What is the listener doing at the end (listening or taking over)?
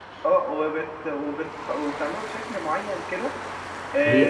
taking over